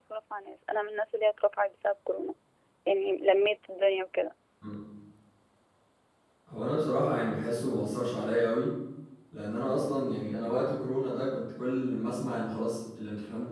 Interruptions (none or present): none